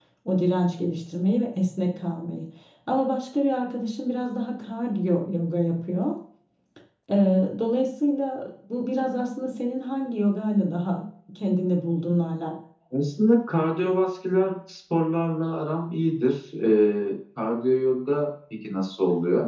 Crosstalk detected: No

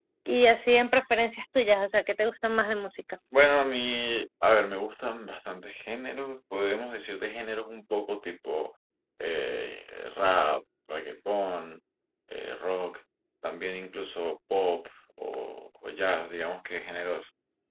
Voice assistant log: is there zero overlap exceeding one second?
Yes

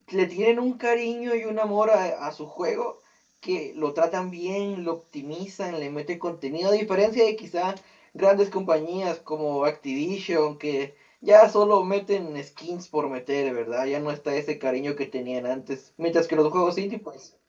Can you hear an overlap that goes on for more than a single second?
No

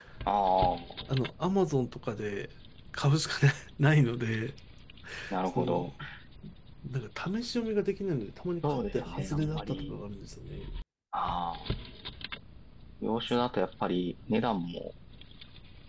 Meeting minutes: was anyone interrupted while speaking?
Yes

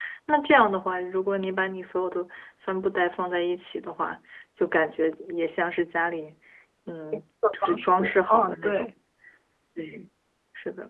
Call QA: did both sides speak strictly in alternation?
No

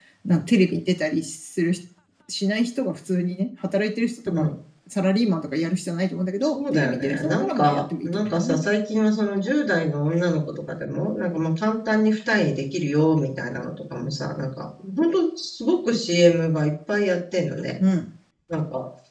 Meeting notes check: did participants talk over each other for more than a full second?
Yes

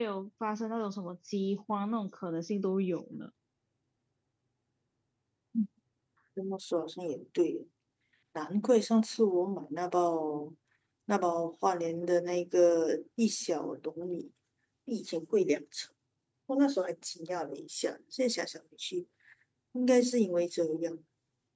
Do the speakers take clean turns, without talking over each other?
Yes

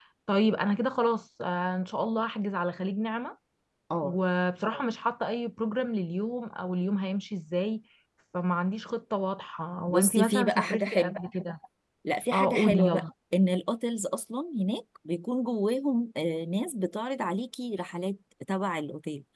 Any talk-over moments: Yes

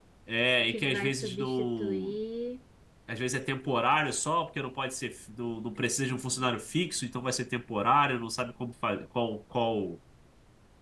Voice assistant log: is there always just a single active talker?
No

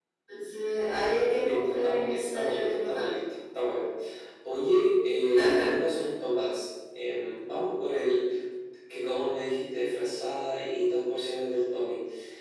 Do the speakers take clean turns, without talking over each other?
No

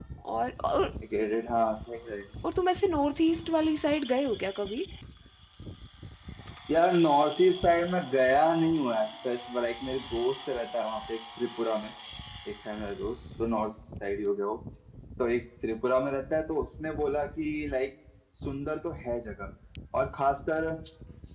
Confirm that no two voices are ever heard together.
Yes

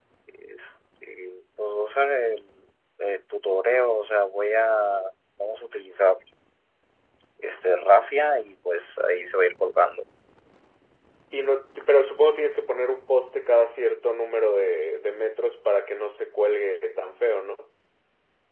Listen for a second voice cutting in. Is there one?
No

